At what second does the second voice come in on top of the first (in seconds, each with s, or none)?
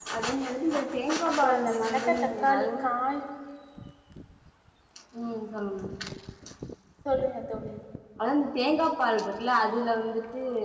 1.2 s